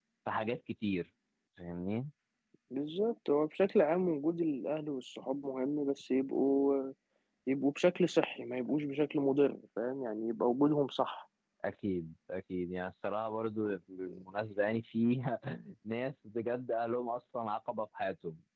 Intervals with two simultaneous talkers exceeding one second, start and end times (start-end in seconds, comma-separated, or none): none